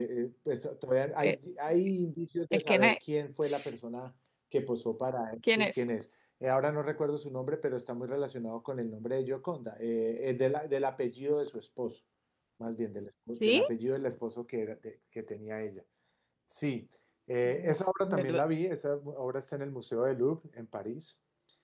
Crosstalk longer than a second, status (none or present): none